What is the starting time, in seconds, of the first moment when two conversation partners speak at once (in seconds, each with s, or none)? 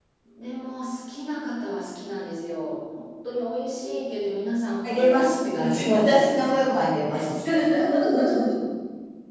4.8 s